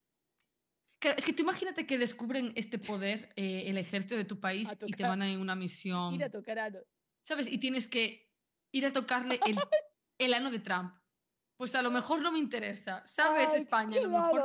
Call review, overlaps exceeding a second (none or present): present